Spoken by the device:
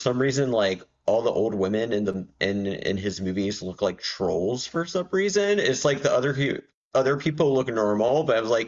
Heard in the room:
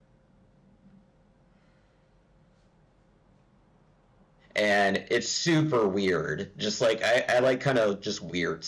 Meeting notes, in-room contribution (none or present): present